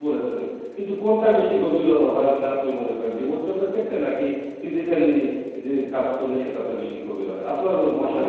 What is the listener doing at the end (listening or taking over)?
taking over